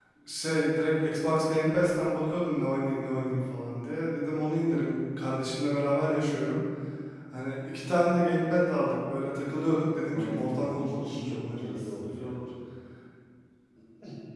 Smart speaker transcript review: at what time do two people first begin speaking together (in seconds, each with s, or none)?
10.1 s